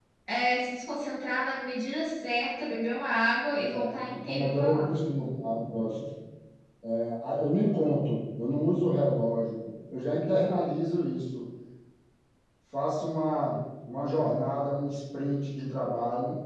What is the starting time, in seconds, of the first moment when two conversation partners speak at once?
3.6 s

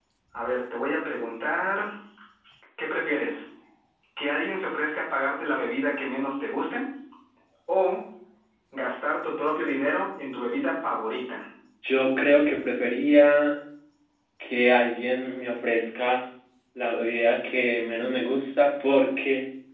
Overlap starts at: none

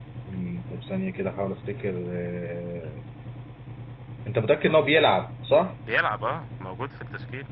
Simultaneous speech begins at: none

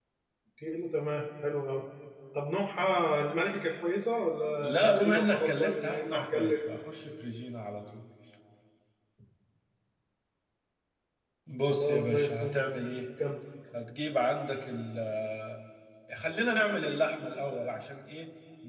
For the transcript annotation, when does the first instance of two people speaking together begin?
4.6 s

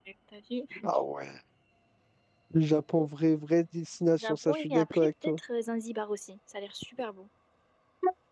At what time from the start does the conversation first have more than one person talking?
4.2 s

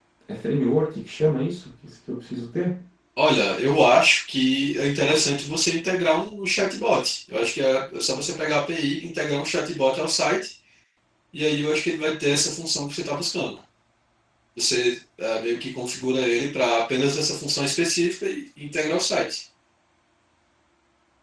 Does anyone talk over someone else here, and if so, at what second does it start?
none

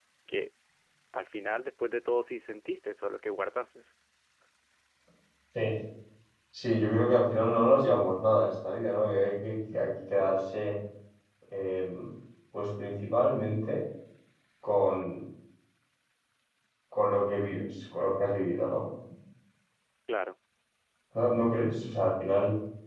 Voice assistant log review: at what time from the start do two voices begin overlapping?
none

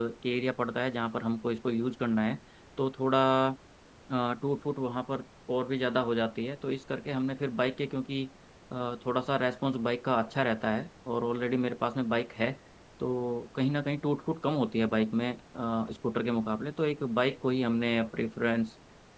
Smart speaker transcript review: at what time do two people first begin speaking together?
none

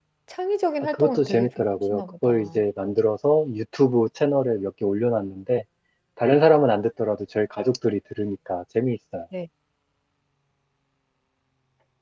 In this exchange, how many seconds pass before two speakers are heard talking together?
0.9 s

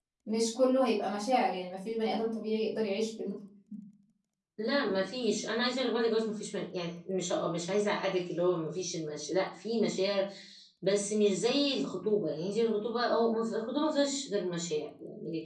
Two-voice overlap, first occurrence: none

